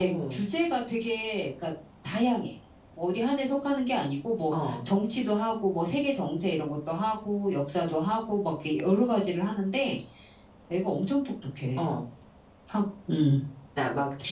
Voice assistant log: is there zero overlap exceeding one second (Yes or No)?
Yes